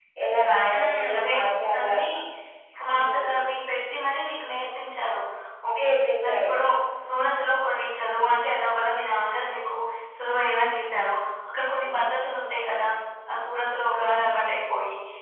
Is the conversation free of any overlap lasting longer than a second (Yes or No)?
No